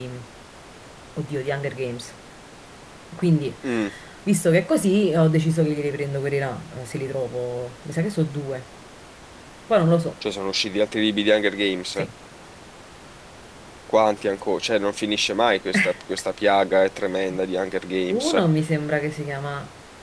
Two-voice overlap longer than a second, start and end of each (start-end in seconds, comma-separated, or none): none